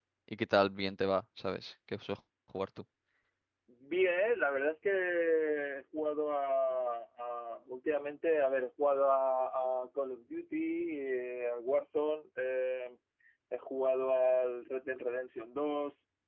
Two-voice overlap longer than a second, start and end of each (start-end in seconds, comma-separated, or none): none